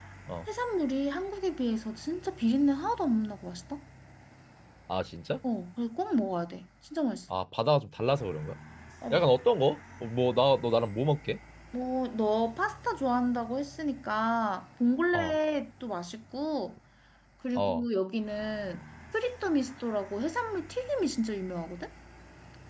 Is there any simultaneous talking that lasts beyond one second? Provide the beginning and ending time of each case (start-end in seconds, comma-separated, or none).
none